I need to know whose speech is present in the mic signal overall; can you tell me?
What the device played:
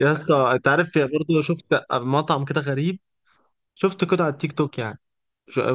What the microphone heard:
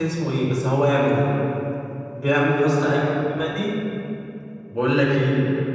user only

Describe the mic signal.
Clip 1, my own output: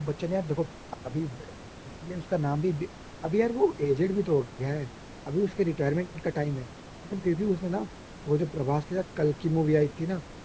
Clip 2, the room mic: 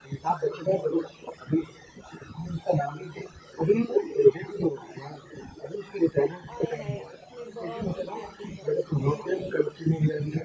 both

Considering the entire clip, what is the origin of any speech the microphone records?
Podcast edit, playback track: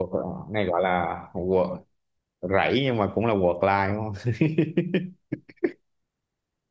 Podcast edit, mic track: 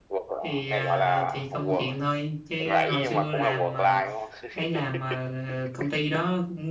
both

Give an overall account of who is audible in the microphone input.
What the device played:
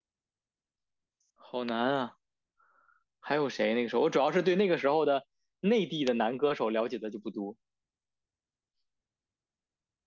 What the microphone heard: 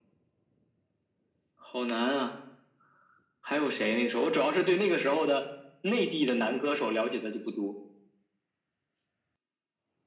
echo only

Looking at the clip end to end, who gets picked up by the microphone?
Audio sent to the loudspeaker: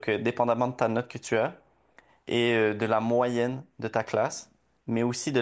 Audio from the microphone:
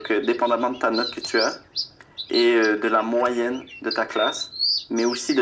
echo only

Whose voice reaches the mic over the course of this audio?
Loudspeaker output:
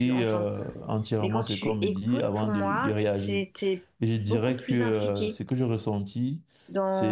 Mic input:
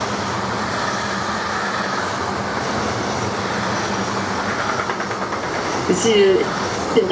user only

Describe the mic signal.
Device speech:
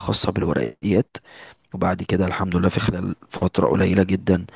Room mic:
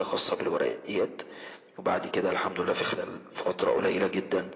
echo only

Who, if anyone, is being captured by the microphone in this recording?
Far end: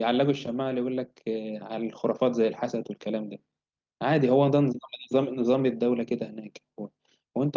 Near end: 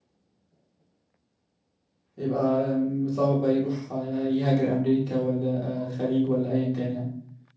user only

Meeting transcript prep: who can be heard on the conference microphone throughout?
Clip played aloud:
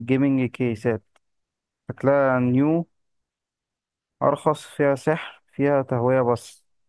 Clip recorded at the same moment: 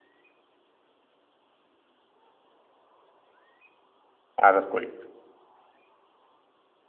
user only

